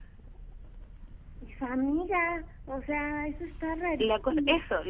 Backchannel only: No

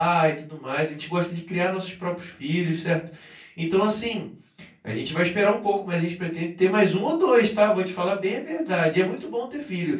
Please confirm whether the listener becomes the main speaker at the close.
No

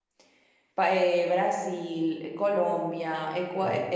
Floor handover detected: No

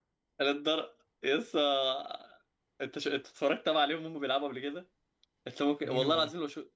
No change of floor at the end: Yes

